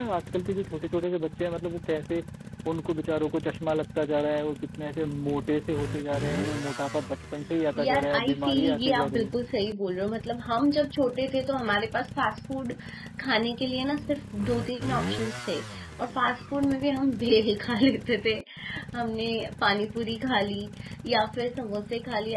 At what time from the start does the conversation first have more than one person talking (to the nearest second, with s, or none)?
8 s